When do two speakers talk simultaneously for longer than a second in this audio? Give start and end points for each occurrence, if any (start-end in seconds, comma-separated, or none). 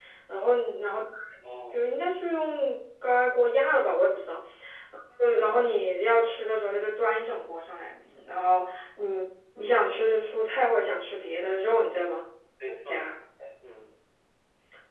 none